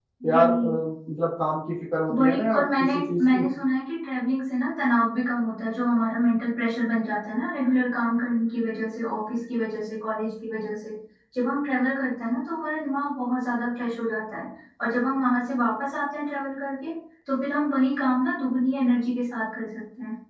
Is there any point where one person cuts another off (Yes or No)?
Yes